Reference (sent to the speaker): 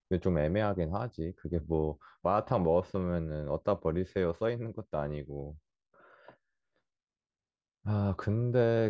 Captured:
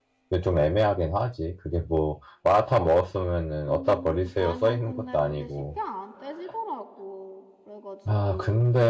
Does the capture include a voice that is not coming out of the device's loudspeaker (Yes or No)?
Yes